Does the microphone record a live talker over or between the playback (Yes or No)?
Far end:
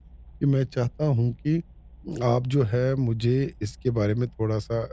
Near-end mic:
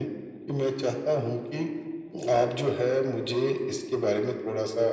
No